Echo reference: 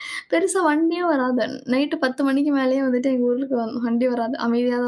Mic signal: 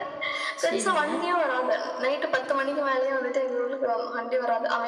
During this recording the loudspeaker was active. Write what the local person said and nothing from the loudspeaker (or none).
சரிங்க,